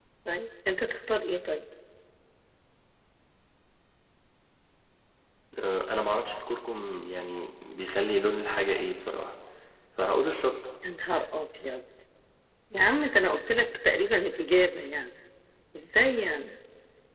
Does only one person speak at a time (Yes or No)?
Yes